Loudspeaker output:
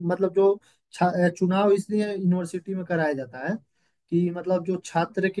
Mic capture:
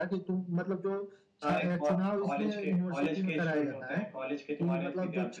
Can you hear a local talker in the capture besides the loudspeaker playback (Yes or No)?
Yes